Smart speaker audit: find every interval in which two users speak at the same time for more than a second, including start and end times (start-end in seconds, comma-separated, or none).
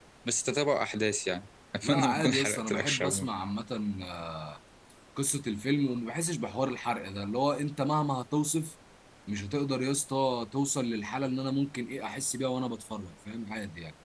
1.8-3.2